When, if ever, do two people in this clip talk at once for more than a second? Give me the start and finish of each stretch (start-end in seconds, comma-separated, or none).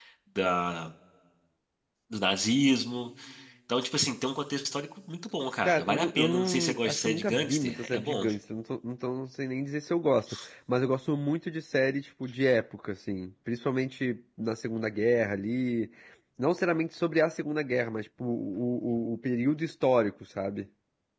5.6-8.2